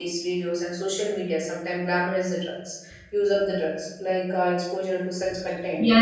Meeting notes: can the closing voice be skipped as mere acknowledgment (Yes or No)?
No